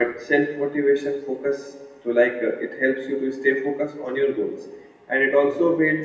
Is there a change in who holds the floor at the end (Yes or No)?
No